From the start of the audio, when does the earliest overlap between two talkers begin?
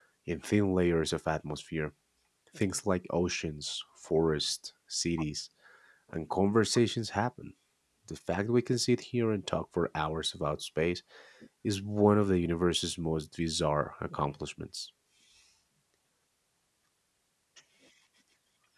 none

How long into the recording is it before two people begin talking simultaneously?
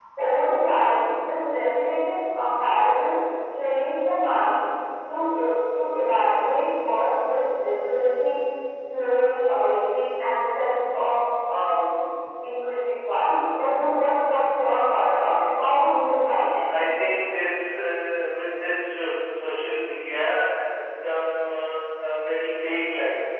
none

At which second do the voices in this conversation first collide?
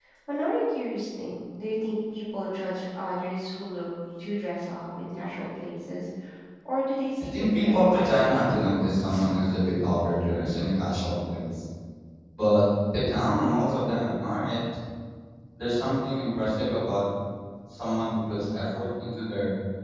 7.2 s

